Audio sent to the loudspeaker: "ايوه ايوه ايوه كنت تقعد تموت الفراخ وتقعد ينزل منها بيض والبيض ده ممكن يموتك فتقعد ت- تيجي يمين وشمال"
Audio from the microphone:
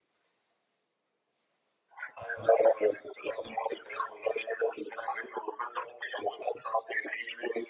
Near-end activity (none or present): none